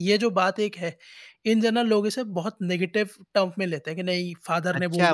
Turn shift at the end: Yes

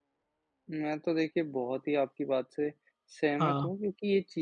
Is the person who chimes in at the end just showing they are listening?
Yes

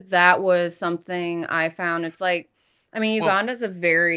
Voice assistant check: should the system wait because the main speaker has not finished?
Yes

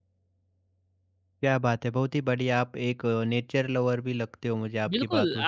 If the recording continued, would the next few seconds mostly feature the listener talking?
Yes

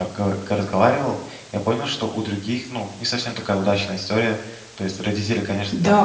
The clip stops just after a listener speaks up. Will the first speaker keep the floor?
No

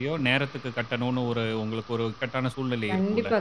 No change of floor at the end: No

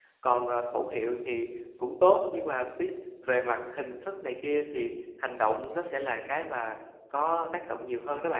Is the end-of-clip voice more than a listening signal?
Yes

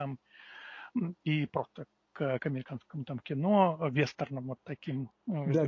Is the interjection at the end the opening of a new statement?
Yes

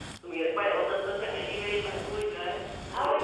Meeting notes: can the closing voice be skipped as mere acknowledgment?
No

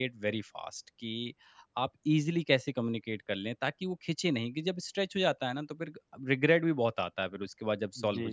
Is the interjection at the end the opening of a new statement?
Yes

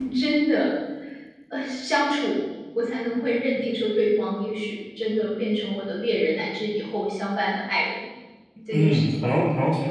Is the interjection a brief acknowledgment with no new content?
No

